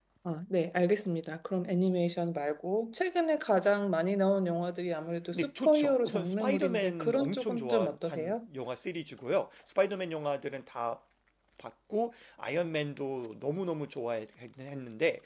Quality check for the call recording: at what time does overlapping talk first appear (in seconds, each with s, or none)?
5.3 s